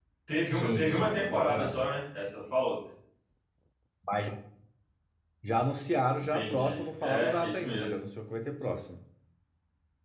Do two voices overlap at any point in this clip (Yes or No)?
Yes